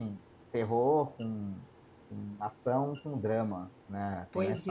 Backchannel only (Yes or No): No